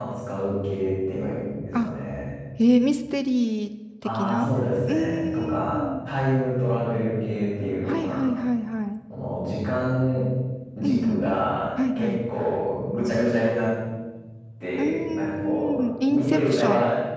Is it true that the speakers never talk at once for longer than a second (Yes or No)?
No